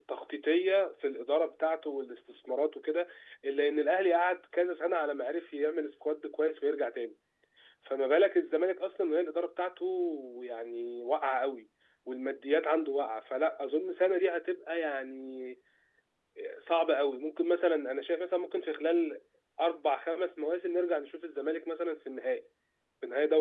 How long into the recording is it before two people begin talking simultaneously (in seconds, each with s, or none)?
none